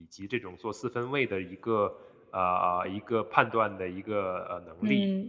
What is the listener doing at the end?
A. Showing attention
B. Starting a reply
B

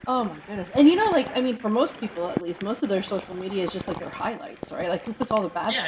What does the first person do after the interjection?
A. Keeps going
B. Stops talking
B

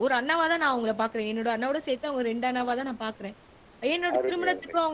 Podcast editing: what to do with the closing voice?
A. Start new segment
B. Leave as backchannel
B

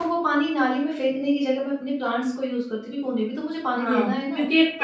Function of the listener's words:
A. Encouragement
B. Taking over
B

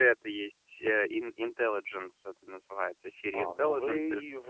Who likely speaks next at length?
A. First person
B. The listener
B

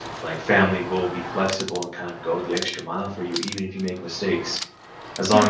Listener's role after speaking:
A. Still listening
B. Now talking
A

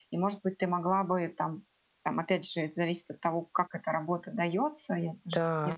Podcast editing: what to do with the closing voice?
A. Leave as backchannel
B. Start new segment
A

